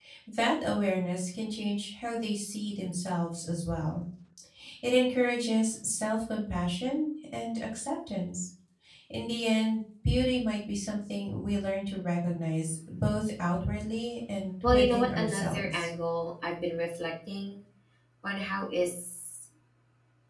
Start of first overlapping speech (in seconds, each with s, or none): 14.6 s